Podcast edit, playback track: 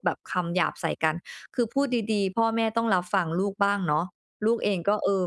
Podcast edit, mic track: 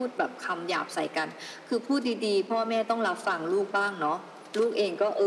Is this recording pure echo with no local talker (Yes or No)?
Yes